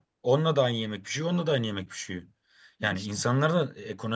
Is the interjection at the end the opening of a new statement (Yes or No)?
No